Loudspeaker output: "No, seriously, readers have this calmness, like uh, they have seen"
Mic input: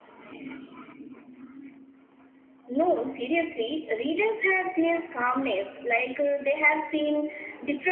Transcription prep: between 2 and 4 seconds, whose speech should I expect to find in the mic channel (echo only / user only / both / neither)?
echo only